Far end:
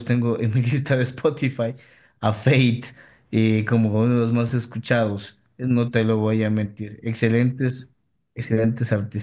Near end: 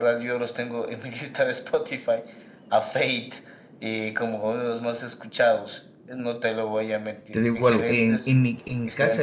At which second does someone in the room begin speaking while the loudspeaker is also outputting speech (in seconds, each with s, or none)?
7.3 s